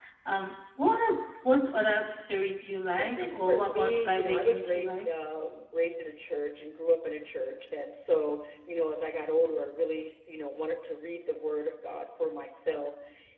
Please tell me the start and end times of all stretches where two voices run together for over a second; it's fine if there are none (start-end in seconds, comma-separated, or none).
3.0-5.1